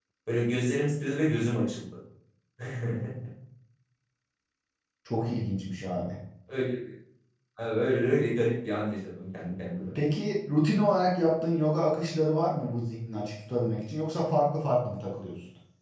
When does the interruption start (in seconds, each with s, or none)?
none